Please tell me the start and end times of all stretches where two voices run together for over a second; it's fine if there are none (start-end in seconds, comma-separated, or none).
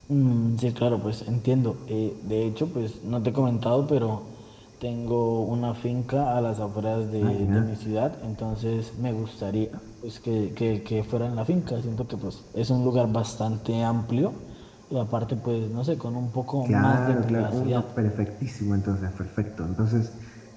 16.6-17.9